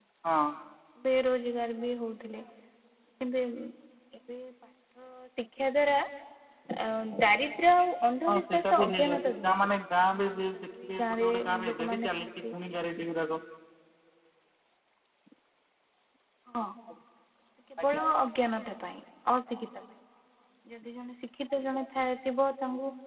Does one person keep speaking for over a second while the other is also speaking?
Yes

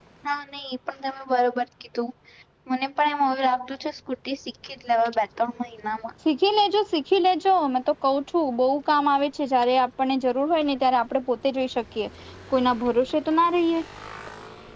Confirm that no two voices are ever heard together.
Yes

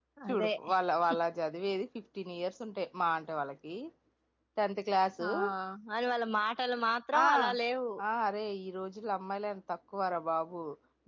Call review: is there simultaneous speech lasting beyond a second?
No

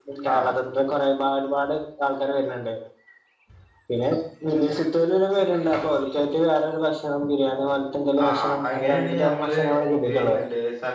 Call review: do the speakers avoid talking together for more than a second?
No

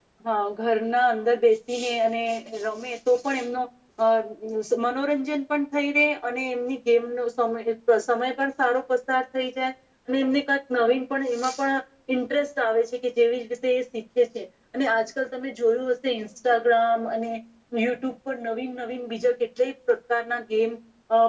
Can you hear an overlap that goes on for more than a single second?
No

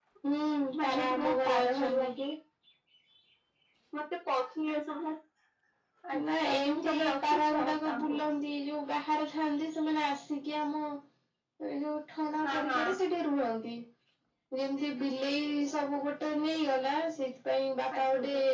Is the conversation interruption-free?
No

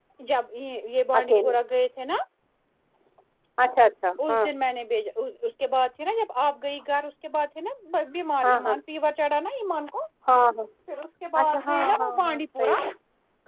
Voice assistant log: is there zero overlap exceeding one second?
No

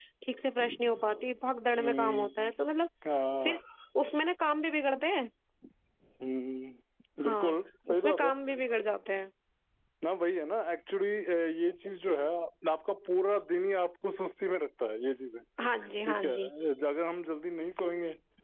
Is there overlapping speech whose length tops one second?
No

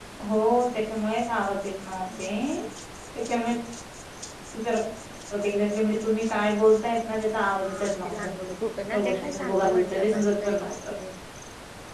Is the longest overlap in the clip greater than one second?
Yes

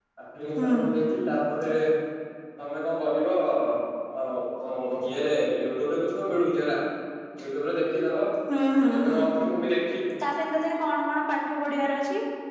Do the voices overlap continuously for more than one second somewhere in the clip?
No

